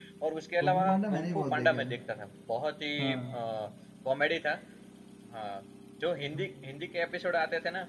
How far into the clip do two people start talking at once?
0.6 s

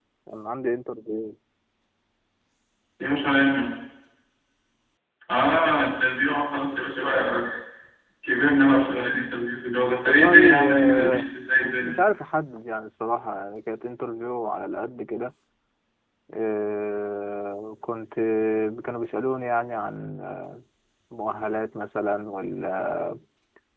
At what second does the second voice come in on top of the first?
10.1 s

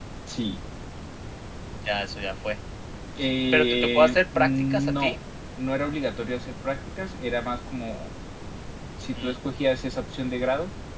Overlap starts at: 3.5 s

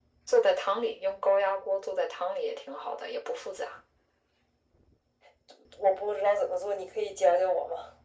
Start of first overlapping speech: none

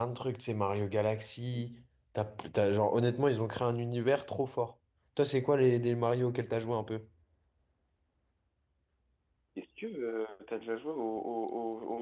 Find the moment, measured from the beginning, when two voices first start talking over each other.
none

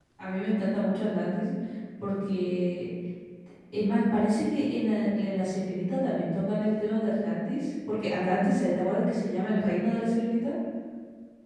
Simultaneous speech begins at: none

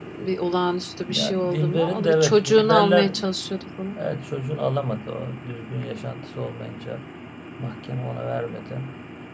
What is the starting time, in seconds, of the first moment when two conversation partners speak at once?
1.1 s

